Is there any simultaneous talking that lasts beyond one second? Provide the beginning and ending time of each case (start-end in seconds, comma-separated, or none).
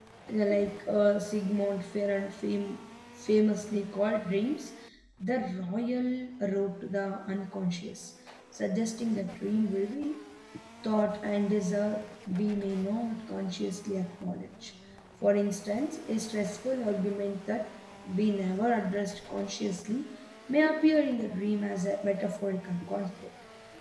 none